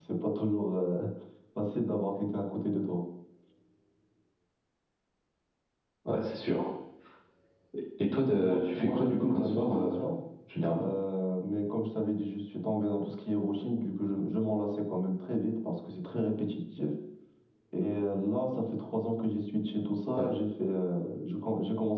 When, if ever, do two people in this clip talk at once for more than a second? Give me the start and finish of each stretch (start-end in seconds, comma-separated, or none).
8.3-9.9